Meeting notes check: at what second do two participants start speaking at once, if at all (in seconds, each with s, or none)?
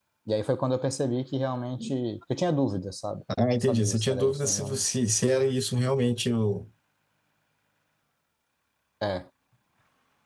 3.3 s